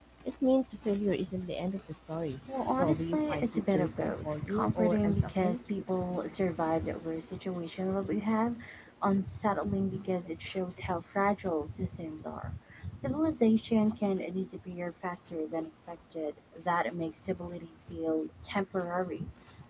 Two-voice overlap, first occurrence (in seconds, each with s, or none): 2.8 s